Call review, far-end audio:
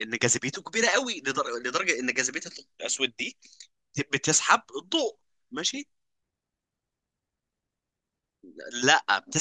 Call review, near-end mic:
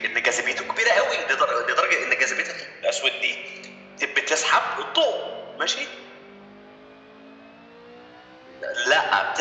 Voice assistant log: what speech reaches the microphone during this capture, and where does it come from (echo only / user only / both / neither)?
echo only